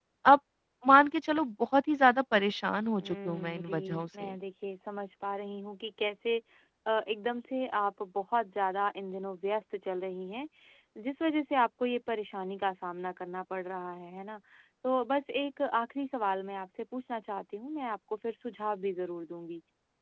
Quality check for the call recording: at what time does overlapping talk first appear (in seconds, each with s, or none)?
3.0 s